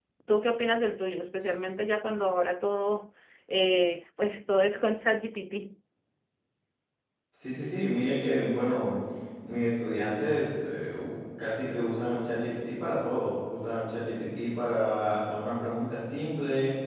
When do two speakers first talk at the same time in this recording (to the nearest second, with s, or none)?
none